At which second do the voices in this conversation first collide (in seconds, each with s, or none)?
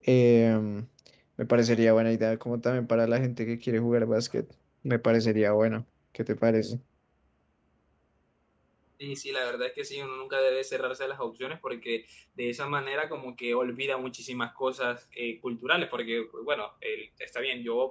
none